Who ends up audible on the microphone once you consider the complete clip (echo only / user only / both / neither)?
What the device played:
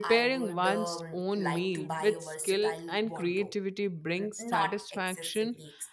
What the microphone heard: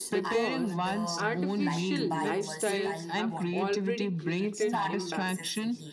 both